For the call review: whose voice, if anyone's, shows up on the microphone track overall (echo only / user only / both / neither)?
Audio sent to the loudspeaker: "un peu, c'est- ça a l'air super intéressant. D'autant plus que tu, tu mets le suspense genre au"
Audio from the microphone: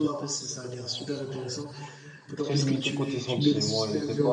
both